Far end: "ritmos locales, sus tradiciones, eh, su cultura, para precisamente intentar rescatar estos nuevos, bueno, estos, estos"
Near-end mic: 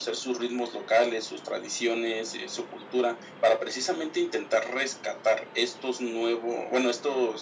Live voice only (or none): none